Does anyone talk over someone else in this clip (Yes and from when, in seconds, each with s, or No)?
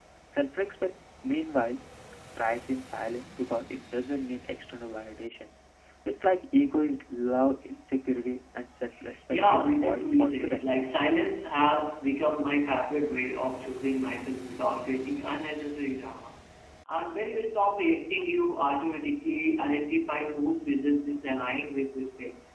Yes, from 9.3 s